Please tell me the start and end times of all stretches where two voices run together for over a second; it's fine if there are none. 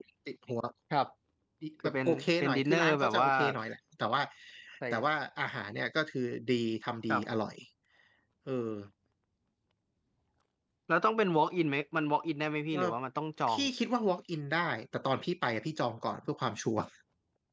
1.8-3.3

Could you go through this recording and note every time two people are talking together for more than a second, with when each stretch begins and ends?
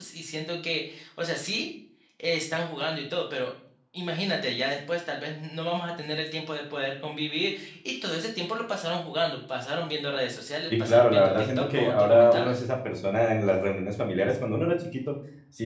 10.8-12.6

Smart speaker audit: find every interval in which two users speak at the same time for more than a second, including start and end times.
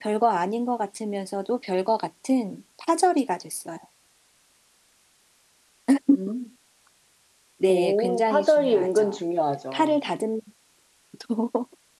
7.7-9.2

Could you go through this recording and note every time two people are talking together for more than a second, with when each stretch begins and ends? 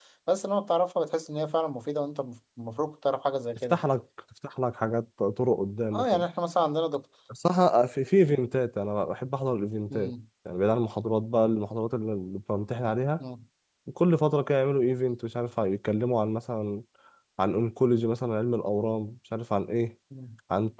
none

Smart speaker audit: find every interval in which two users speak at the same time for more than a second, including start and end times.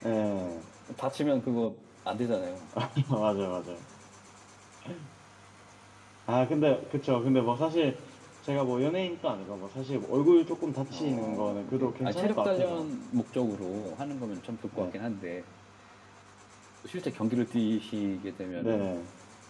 10.9-12.9

